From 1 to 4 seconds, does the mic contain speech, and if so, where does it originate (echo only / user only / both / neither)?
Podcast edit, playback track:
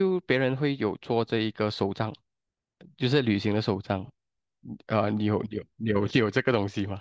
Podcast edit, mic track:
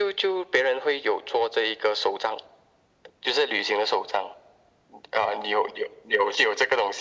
echo only